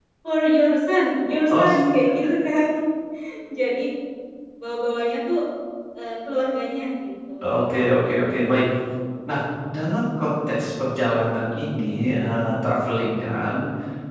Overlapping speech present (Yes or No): Yes